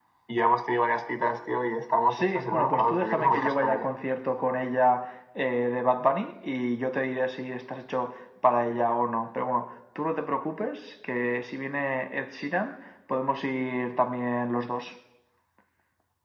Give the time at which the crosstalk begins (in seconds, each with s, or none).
2.1 s